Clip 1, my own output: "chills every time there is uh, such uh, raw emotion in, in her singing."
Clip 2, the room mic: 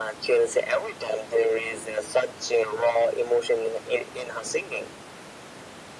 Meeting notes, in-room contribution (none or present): none